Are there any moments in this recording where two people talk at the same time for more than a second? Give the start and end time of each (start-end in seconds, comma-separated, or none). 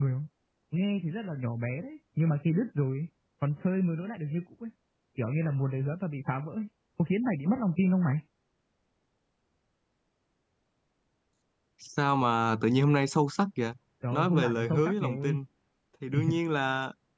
14.1-15.4